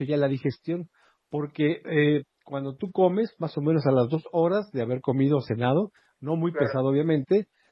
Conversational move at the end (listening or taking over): listening